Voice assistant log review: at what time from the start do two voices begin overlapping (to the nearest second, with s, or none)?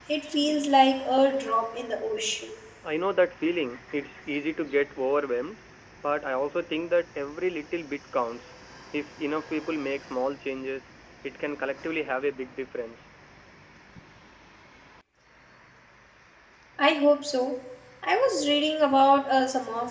none